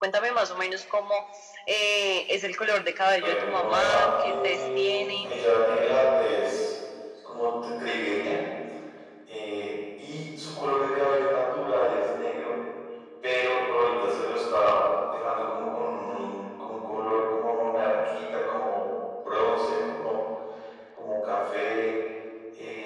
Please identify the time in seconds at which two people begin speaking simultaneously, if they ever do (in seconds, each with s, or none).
3.2 s